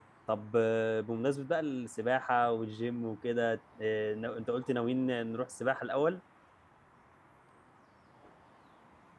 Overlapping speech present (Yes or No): No